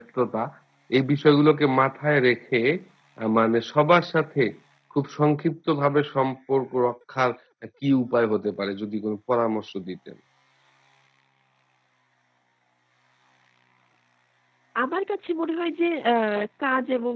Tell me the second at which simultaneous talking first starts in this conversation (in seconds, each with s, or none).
none